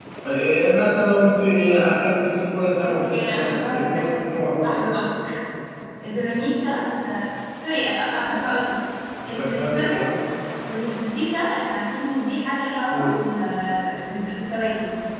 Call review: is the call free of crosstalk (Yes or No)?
No